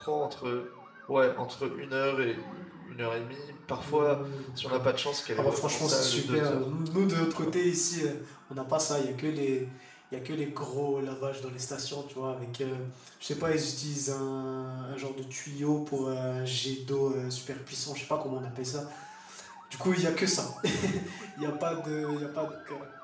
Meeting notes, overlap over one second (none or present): present